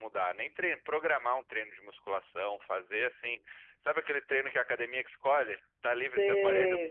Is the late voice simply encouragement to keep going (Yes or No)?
No